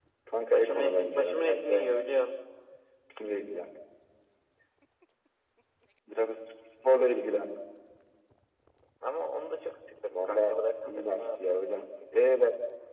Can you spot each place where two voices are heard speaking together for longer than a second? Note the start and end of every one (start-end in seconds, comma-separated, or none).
0.5-1.9, 10.1-11.6